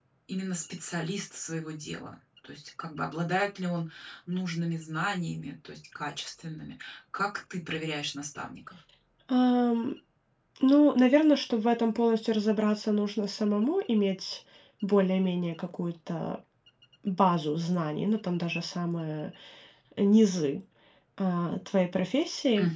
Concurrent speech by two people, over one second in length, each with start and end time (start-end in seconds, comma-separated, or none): none